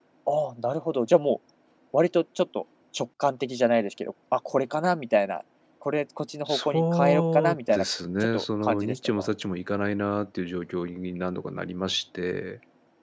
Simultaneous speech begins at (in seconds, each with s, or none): 6.5 s